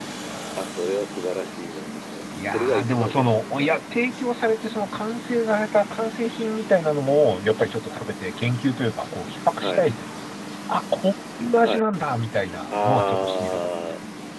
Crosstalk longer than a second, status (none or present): present